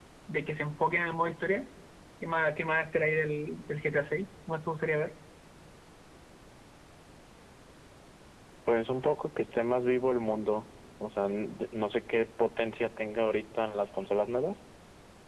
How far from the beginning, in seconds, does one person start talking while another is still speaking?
none

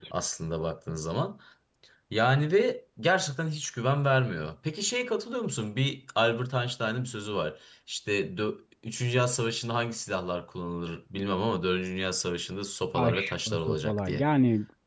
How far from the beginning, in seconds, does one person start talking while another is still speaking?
13 s

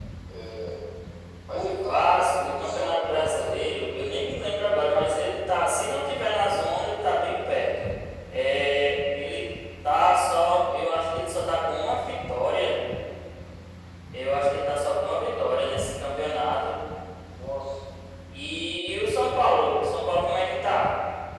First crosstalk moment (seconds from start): 2 s

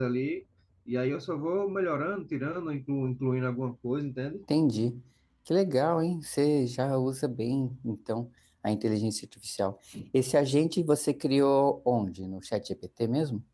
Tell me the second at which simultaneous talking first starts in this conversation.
none

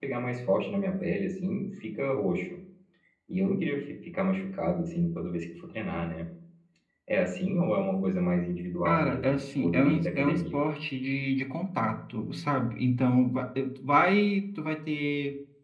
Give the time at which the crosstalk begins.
9 s

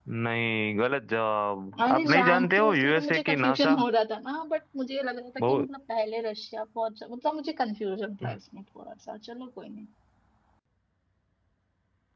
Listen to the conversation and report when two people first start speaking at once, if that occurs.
2 s

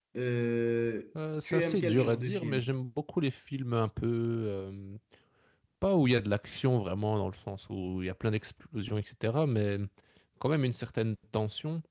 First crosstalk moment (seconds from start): 1 s

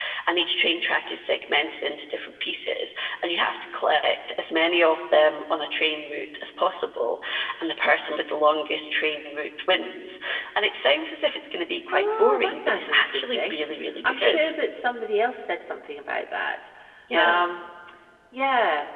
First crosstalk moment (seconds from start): 12 s

